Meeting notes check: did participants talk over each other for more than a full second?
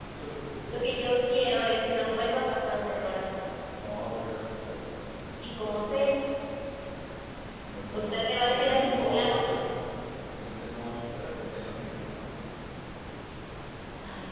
Yes, from 7.9 s

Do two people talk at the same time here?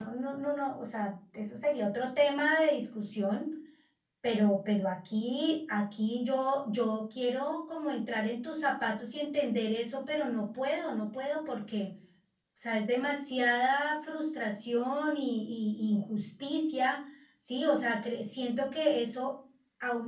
No

